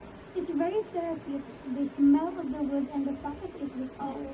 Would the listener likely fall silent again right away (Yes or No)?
No